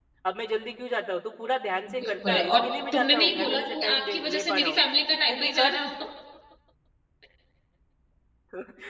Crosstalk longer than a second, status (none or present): present